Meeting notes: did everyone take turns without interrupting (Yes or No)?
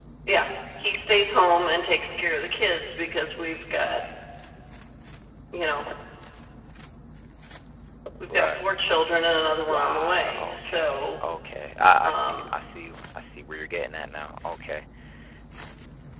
No